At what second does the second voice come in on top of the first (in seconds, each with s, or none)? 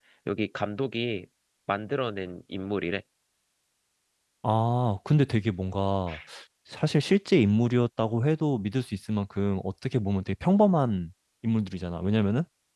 none